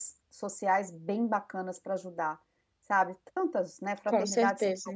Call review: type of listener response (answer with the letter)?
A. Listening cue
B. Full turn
A